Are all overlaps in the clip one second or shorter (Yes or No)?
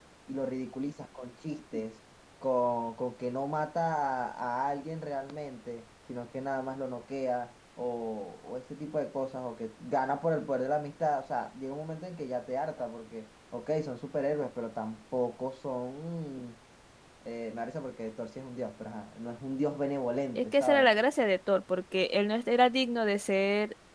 Yes